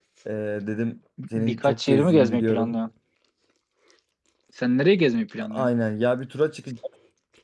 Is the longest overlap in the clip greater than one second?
Yes, from 1.3 s

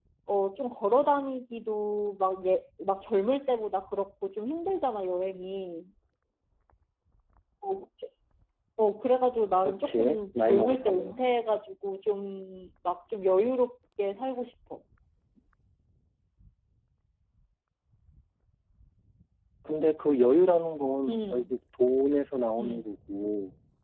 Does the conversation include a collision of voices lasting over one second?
Yes, from 9.6 s

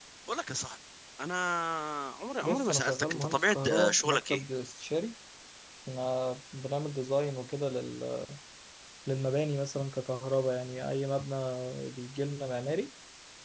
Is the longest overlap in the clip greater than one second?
Yes, from 2.4 s

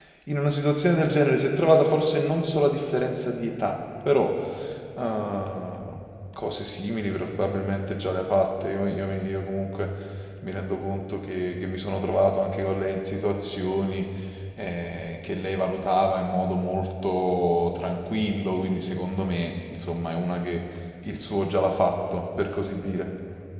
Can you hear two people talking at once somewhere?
No

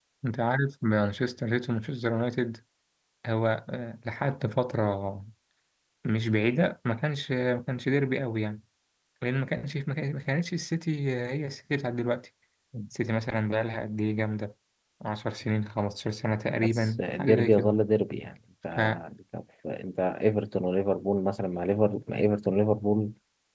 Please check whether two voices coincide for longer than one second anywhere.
Yes, from 16.5 s

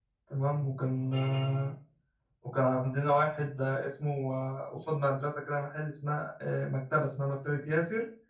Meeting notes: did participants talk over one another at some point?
No

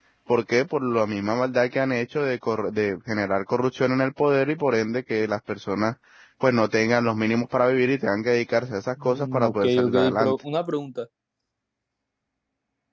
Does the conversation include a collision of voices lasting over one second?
Yes, from 9.0 s

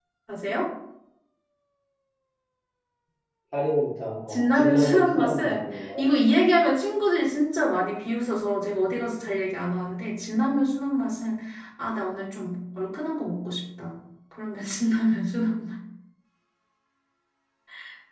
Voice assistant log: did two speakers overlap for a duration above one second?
Yes, from 4.3 s

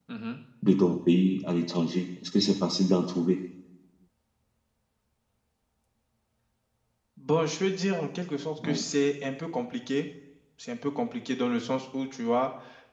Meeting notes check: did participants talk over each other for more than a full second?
No

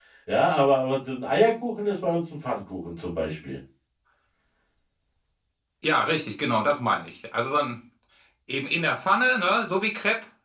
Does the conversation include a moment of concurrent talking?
No

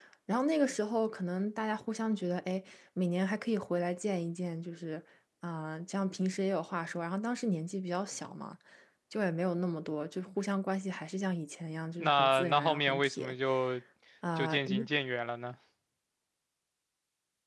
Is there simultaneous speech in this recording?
Yes, from 12.0 s

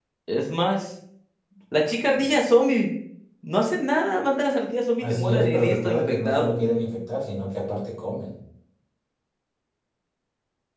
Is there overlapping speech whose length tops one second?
Yes, from 5.0 s

